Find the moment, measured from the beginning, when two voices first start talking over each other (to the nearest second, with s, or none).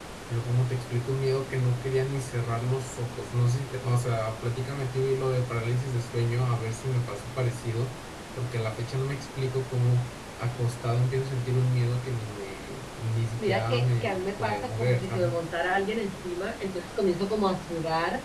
13 s